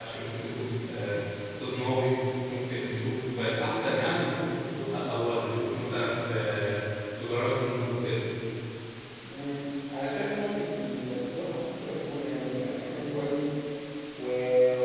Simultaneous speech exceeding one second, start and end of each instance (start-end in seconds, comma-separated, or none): none